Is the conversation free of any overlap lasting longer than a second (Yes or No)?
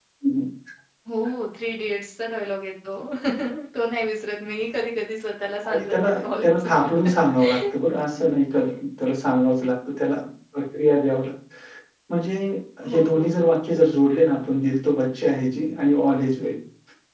No